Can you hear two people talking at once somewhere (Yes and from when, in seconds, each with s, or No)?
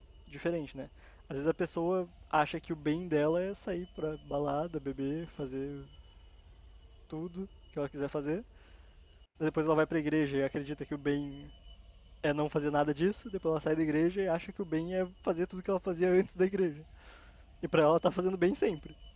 No